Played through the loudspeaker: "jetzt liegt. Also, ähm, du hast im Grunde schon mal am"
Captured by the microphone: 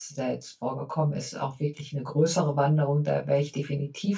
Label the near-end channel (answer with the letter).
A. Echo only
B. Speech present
B